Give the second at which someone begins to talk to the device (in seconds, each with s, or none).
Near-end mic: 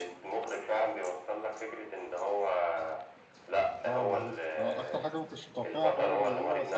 3.9 s